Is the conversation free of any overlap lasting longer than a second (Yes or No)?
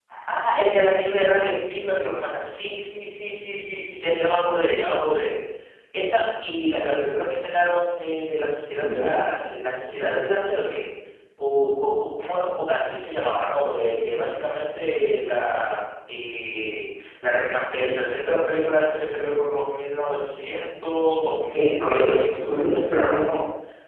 No